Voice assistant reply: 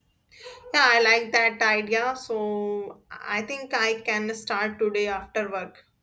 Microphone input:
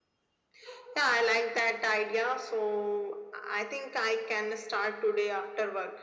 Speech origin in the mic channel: echo only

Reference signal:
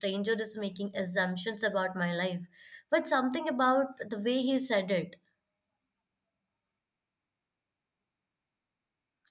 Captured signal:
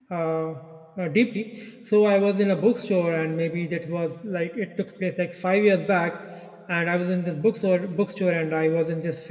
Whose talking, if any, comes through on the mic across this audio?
user only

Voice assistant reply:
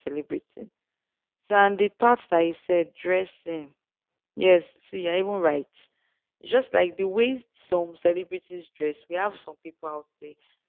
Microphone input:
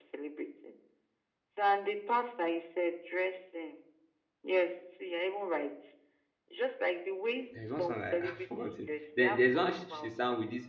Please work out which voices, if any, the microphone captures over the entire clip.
both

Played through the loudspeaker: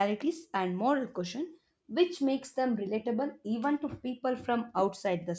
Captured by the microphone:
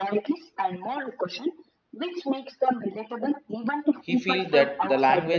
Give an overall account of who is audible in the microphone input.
both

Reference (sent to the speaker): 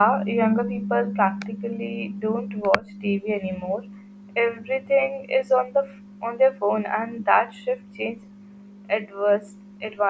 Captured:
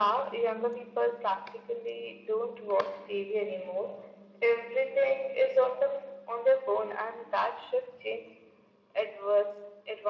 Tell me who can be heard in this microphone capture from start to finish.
echo only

